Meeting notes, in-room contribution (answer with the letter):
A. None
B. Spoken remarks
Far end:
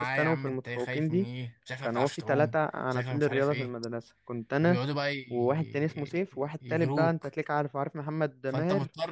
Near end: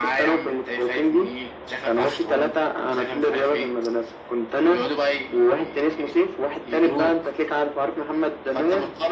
A